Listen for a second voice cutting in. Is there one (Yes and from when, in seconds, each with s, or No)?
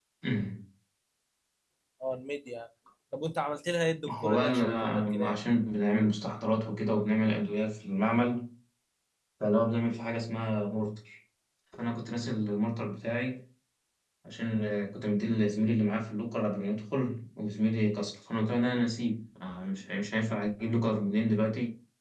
Yes, from 4.1 s